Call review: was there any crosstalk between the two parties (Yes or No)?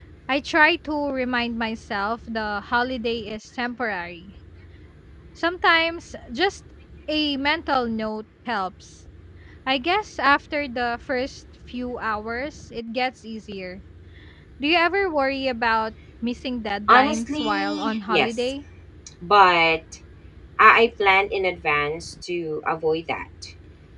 Yes